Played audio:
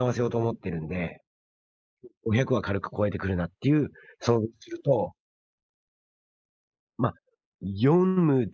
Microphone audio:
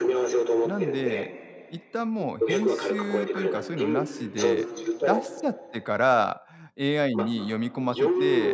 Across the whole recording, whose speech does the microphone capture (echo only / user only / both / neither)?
both